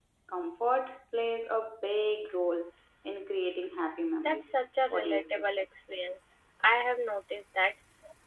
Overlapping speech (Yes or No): Yes